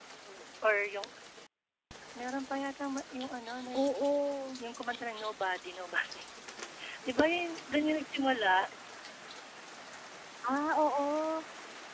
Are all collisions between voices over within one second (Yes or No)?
Yes